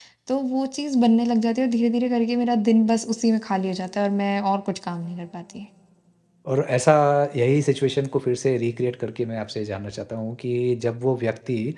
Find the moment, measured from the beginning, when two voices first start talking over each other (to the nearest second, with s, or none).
none